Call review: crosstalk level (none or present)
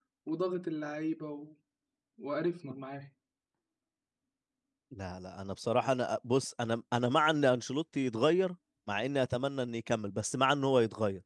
none